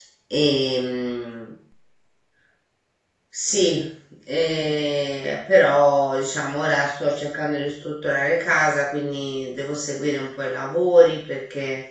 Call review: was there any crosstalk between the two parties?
No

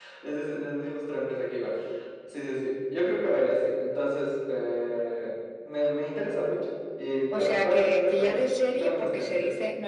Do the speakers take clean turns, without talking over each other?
No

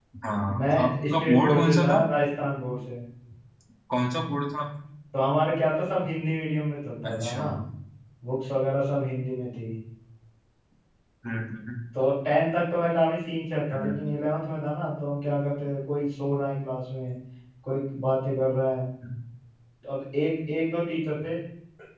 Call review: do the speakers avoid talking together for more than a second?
No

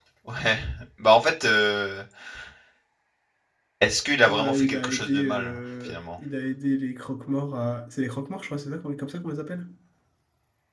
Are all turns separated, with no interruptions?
No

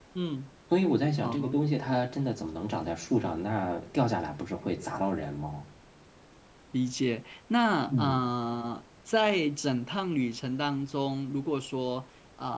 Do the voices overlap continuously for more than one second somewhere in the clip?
No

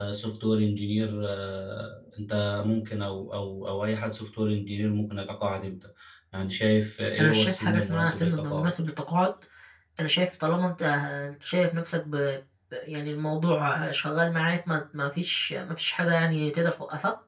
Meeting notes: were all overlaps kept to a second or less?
No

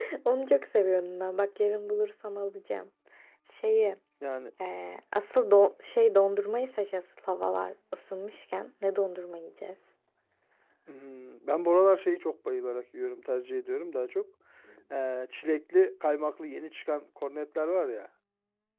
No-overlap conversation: Yes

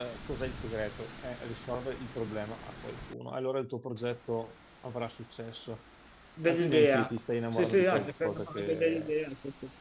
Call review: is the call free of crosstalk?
No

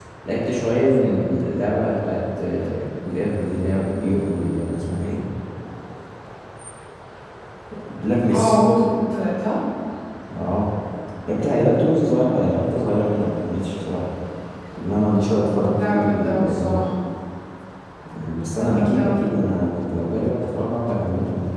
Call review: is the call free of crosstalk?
No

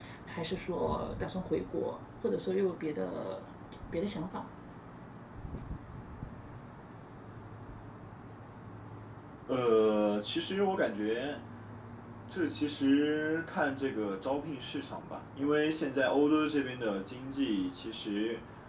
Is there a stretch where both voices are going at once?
No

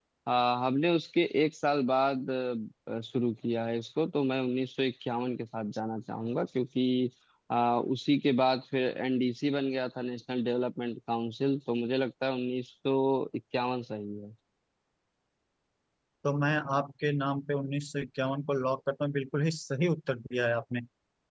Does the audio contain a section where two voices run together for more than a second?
No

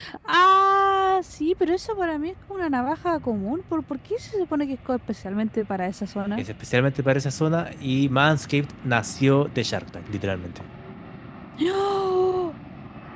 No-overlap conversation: Yes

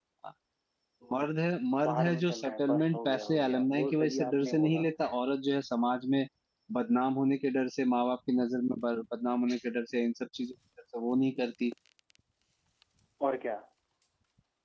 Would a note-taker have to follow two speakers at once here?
Yes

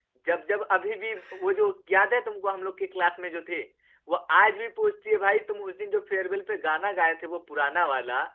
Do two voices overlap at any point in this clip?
No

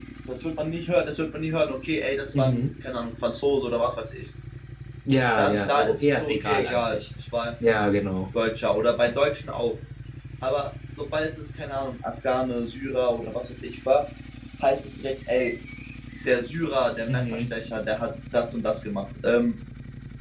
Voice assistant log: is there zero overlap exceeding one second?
No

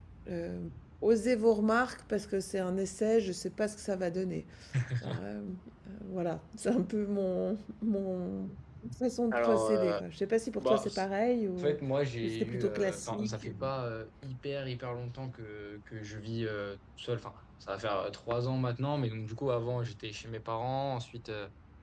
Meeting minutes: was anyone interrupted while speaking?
Yes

